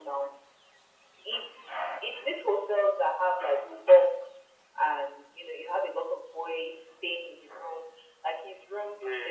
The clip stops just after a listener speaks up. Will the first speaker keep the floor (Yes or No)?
Yes